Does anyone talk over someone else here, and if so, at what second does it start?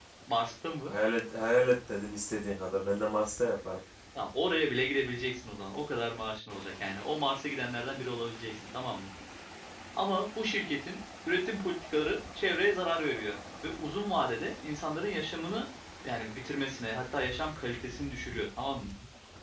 none

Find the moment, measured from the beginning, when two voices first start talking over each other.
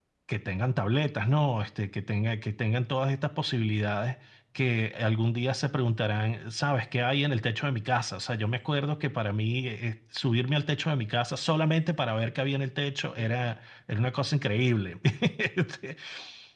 none

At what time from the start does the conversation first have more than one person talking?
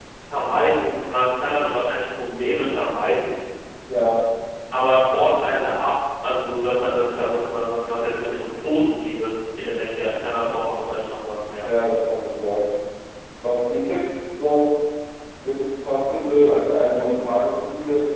none

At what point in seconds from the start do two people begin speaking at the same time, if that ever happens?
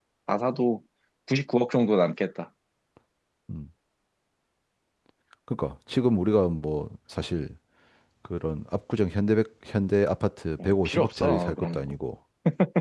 10.6 s

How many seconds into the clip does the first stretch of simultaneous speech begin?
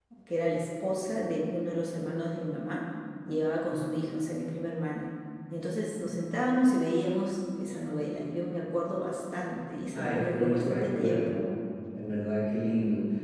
9.9 s

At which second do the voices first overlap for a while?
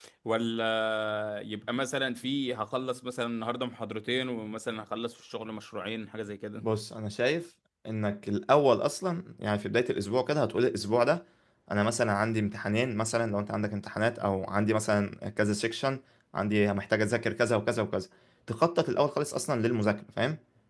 none

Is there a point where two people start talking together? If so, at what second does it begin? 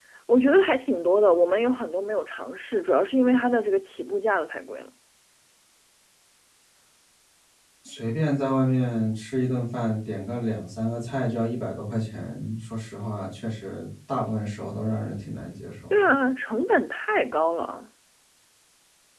none

